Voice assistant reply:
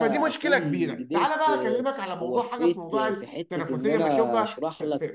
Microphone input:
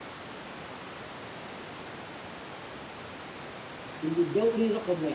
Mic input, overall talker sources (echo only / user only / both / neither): user only